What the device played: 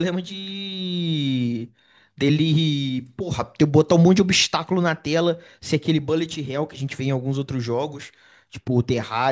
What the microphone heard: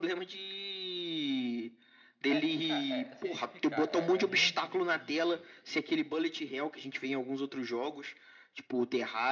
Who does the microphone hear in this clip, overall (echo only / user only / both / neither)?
both